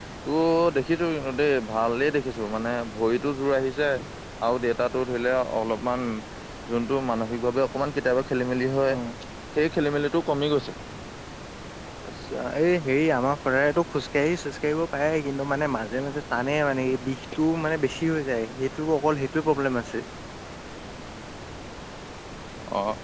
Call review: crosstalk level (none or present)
none